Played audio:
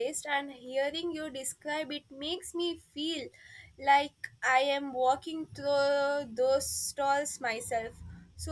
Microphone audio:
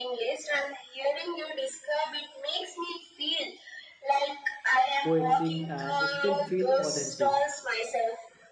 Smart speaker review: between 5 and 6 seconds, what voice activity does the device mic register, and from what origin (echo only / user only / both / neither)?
both